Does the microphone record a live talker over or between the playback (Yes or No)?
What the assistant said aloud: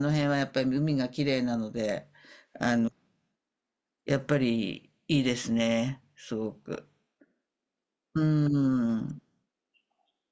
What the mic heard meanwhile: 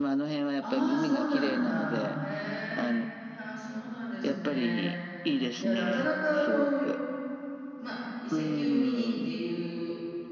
Yes